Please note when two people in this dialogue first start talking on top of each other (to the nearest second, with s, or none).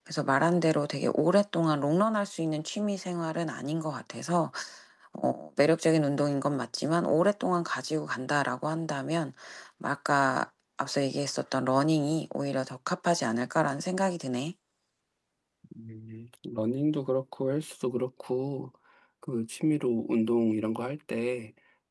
none